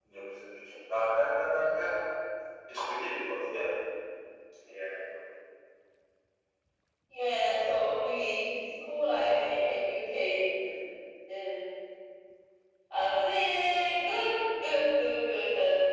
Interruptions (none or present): none